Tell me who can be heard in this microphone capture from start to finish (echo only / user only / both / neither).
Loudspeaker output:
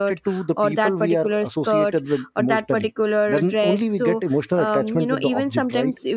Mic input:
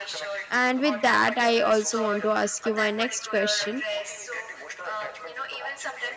both